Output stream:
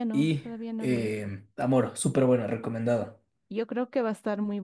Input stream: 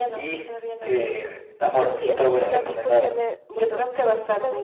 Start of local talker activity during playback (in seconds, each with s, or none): 1.9 s